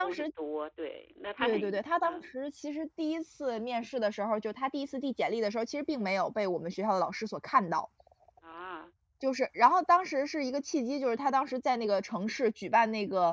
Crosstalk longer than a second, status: none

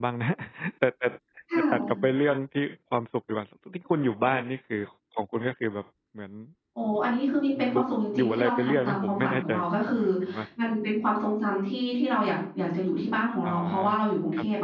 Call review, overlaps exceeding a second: present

